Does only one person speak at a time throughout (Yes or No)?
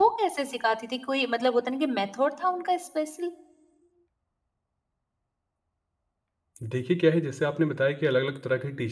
Yes